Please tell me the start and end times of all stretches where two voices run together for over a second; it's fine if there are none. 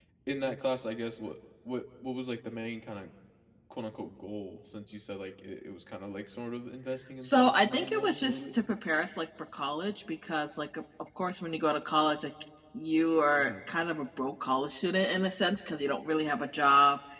7.2-8.4

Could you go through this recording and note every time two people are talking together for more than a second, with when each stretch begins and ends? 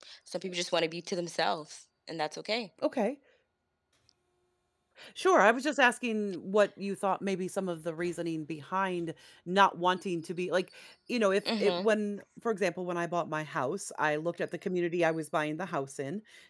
none

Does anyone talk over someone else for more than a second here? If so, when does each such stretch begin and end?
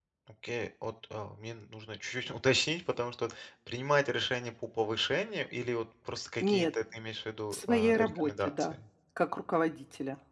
7.5-8.7

